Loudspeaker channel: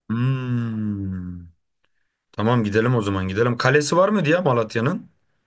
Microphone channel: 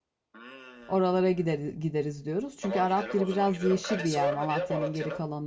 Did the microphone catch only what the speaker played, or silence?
No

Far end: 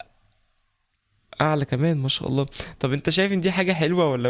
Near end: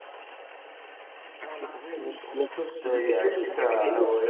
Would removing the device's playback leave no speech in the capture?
No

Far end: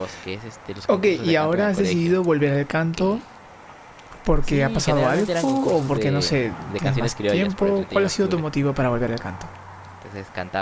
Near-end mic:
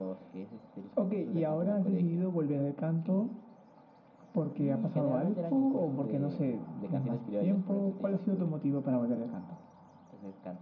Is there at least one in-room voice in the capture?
No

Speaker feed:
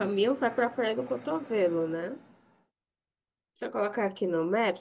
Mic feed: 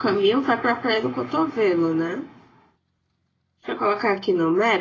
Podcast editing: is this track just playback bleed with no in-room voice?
Yes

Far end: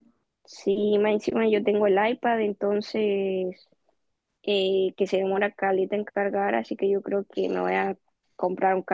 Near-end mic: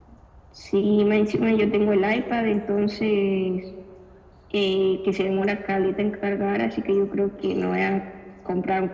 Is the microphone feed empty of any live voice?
Yes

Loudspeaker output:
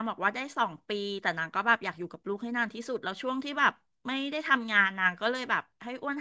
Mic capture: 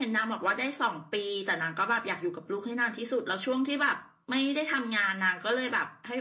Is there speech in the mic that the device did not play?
No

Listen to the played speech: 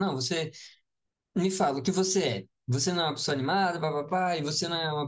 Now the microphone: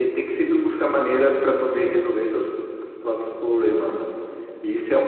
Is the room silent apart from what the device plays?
No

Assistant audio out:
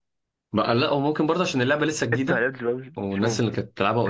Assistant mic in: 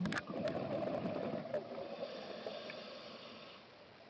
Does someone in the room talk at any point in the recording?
No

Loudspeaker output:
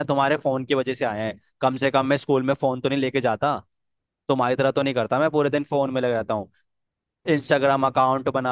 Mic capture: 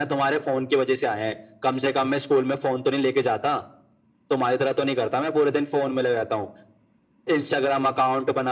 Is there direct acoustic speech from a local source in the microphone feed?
No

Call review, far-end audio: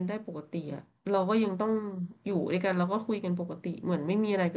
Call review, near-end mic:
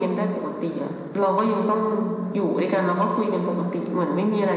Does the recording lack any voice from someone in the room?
Yes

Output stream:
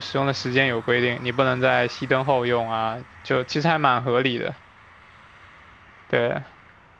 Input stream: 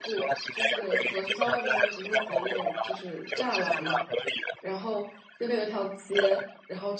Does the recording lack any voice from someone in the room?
No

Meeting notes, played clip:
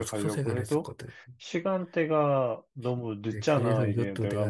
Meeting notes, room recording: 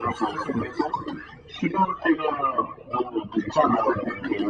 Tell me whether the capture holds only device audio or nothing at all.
Yes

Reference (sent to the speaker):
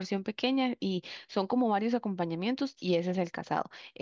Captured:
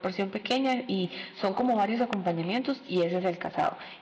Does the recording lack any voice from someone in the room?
Yes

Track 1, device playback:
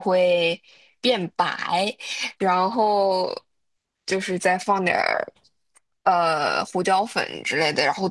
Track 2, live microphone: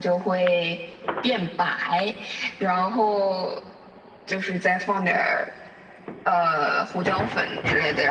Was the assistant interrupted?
No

